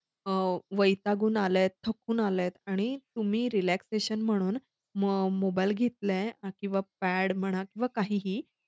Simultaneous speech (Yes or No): No